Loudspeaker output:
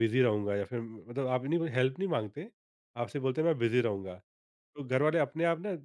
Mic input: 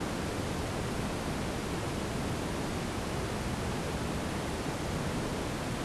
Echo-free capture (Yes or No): Yes